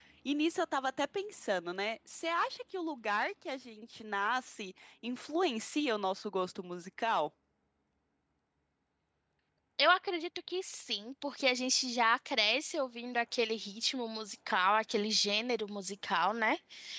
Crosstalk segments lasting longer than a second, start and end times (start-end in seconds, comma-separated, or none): none